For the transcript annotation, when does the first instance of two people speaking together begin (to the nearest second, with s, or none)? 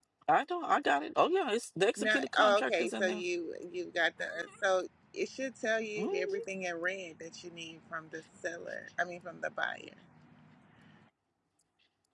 2 s